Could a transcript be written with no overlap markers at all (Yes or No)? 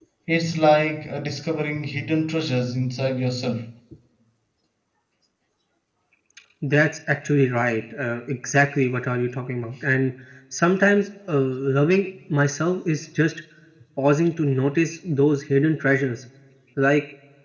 Yes